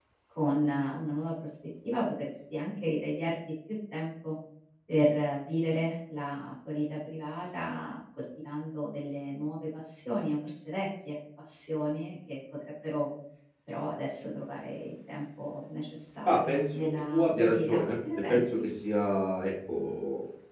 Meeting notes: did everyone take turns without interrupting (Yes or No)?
No